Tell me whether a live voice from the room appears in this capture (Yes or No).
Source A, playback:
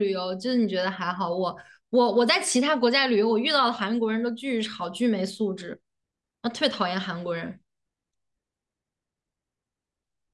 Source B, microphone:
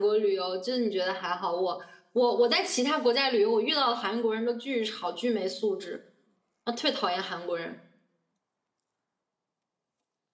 No